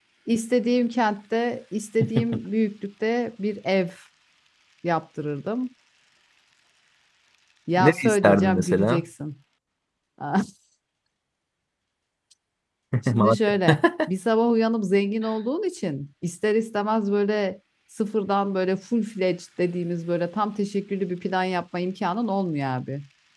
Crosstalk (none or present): present